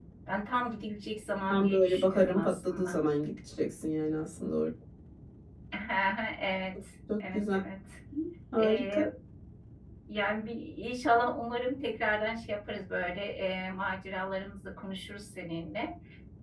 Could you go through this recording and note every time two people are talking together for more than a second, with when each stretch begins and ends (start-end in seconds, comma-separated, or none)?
1.5-3.0